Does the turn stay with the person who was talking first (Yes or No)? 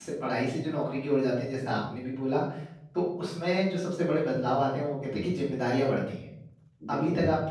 Yes